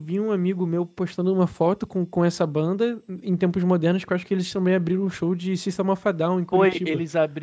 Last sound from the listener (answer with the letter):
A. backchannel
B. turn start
B